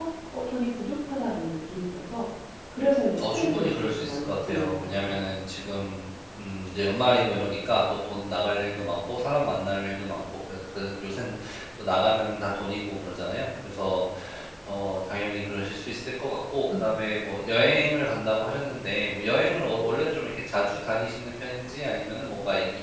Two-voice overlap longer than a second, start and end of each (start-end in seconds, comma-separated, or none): 3.2-5.3